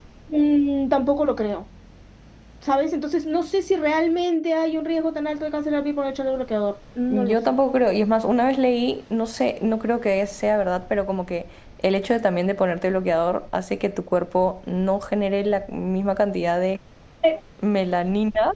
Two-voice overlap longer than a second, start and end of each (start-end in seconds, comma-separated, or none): none